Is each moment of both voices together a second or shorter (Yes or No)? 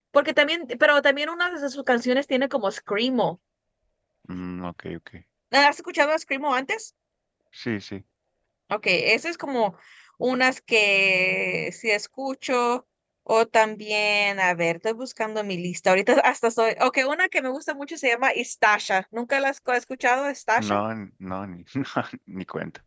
Yes